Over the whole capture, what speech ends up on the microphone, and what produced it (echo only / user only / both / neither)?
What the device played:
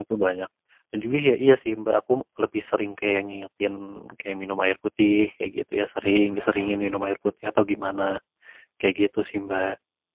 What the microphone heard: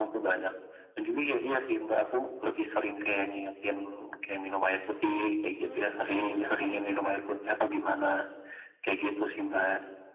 both